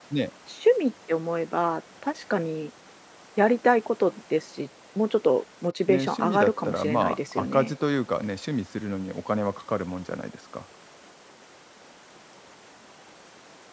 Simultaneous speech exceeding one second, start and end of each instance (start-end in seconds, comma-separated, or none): 5.9-7.7